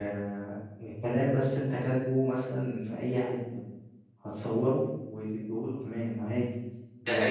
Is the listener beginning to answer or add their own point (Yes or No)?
Yes